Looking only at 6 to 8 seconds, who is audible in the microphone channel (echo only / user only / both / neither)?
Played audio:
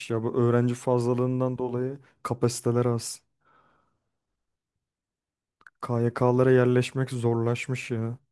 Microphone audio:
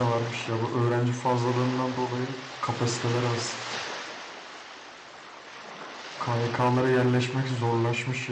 echo only